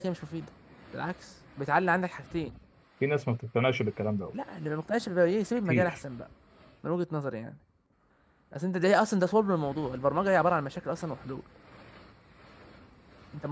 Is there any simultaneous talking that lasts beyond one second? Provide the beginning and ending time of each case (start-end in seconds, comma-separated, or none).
none